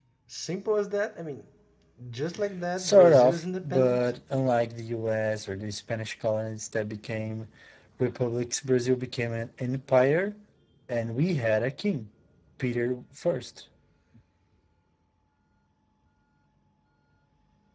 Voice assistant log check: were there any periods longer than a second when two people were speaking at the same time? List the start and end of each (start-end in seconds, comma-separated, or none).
2.8-4.1